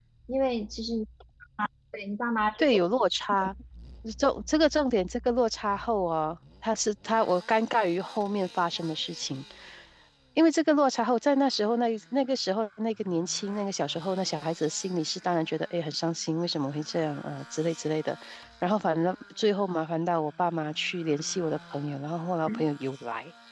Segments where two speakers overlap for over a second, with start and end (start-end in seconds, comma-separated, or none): none